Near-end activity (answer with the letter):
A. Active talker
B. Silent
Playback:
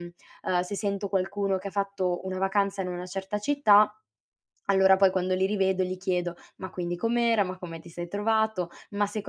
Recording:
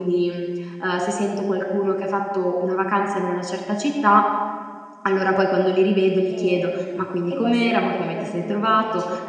A